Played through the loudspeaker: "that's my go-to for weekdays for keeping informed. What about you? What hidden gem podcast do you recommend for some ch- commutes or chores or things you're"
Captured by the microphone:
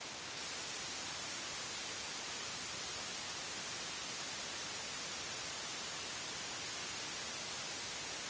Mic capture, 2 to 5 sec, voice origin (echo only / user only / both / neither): neither